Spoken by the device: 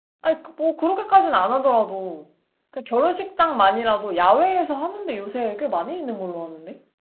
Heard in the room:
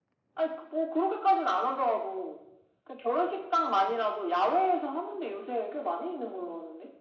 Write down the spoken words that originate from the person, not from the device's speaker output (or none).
none